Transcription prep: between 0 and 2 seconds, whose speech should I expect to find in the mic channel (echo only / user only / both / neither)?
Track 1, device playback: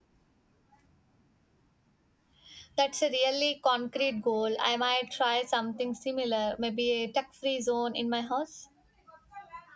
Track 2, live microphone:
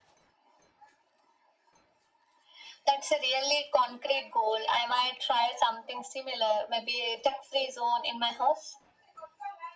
neither